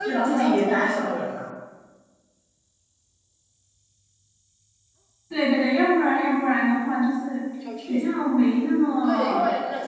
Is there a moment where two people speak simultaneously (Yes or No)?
Yes